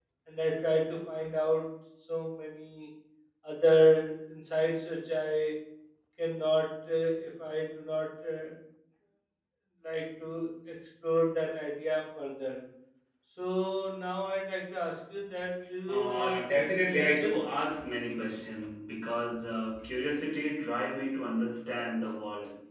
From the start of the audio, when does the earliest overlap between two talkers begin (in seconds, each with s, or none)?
15.9 s